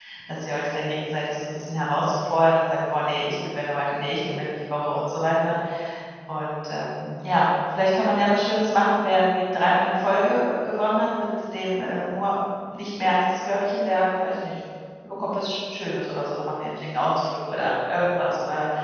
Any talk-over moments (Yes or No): No